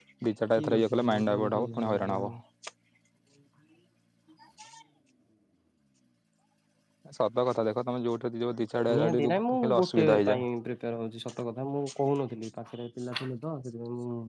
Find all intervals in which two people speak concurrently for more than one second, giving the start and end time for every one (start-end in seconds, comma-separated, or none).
0.6-2.3, 8.9-10.4